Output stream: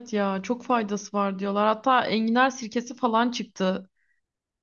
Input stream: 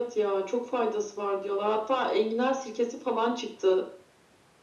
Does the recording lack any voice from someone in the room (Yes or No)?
Yes